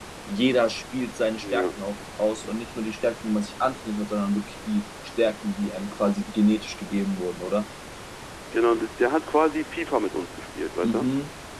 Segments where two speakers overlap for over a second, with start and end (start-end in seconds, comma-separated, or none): none